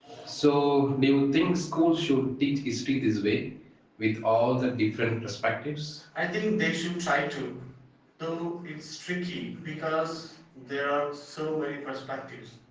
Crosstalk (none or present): none